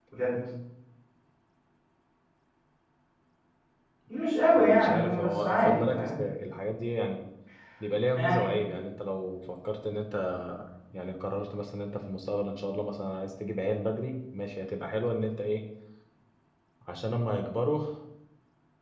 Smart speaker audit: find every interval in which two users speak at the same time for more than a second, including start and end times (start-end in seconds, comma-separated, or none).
4.5-6.1